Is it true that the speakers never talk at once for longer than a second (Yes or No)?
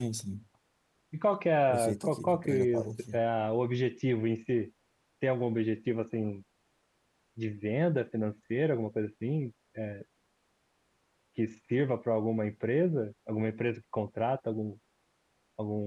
No